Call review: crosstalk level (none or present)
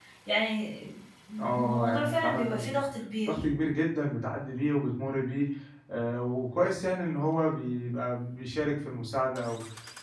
present